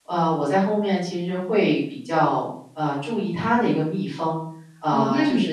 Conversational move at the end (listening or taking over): taking over